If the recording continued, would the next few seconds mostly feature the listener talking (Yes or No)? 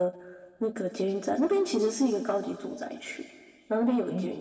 No